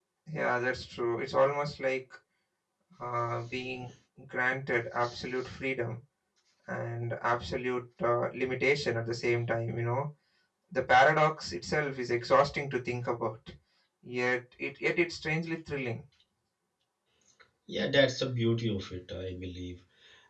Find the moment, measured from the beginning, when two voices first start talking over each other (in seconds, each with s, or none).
none